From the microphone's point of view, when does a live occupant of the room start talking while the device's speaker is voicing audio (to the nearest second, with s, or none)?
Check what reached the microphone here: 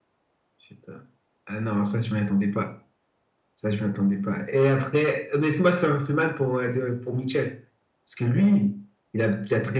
none